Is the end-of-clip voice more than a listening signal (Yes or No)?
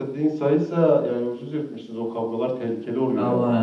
Yes